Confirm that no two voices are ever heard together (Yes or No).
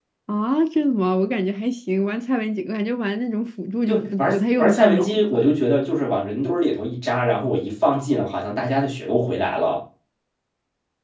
No